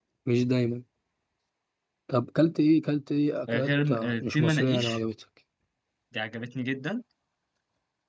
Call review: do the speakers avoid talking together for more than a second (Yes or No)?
No